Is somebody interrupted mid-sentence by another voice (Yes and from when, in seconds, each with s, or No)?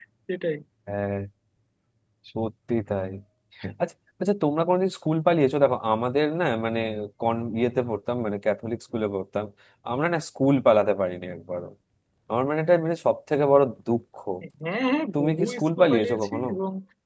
Yes, from 15.2 s